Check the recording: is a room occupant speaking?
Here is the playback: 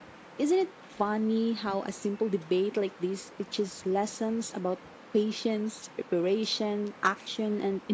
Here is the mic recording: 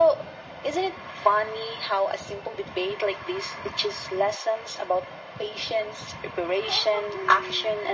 Yes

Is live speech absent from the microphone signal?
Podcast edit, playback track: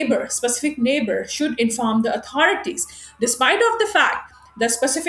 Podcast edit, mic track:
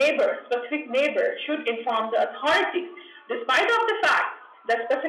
Yes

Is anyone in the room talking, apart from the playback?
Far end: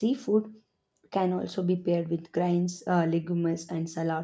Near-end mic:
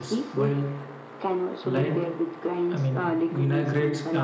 Yes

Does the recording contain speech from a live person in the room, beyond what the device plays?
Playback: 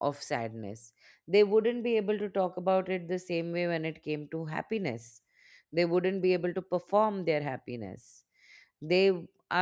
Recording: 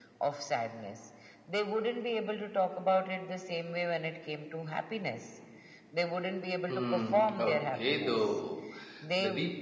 Yes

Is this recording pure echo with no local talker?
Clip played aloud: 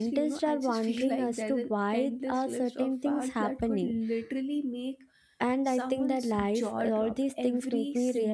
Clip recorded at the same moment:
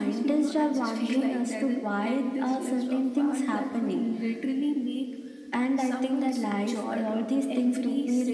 Yes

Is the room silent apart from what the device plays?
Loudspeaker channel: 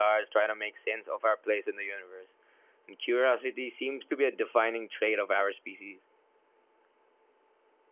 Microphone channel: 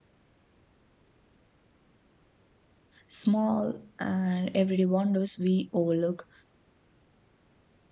No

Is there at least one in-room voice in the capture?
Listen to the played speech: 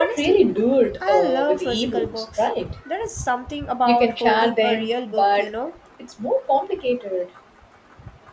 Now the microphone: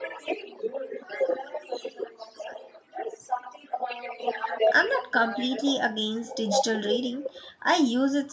Yes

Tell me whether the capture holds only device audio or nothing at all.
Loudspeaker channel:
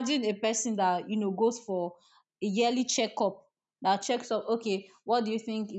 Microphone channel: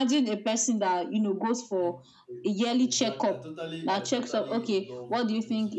No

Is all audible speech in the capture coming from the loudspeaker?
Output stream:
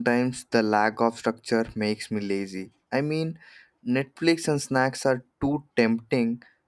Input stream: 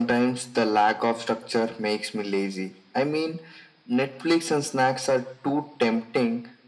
Yes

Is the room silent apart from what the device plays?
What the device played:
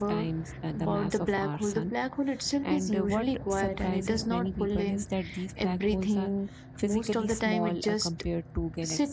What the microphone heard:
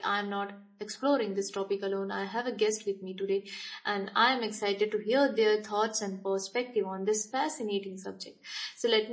No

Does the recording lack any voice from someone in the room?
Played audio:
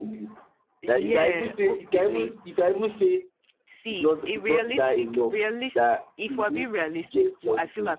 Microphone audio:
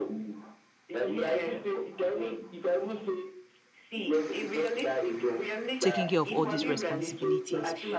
No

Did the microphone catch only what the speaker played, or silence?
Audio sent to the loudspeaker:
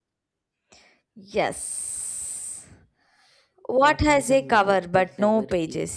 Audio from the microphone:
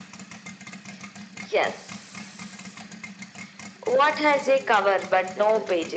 Yes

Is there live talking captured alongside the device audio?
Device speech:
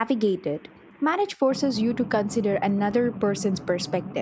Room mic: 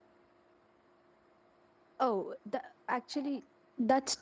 Yes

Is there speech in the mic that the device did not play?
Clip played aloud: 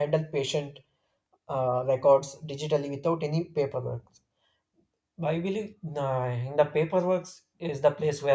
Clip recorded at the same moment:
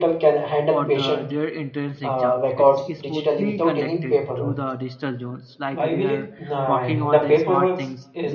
Yes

